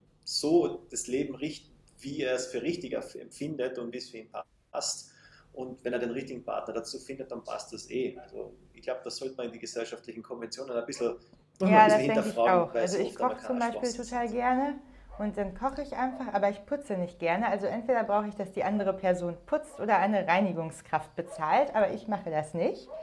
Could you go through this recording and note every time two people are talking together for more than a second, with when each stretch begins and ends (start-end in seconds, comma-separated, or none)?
11.6-14.1